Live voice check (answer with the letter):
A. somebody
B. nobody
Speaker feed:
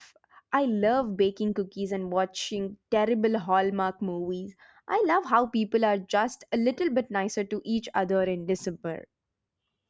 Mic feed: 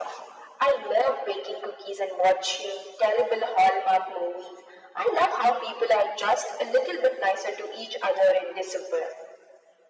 B